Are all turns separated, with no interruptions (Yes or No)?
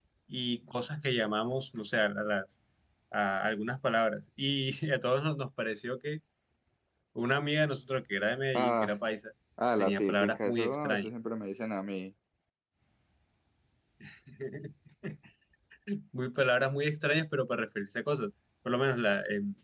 No